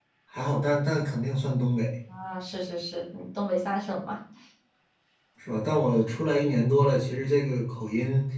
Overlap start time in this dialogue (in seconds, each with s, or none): none